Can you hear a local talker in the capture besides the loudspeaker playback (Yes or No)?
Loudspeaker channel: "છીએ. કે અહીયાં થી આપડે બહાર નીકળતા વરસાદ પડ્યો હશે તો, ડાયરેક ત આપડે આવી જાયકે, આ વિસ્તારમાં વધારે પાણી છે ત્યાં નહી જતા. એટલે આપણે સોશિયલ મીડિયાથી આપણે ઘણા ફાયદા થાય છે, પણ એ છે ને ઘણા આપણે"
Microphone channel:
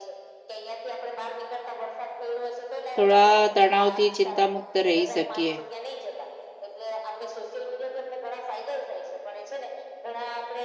Yes